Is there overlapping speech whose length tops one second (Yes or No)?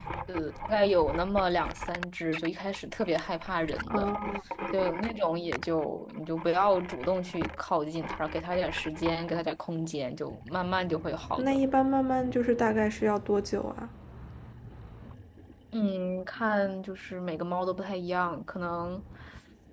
No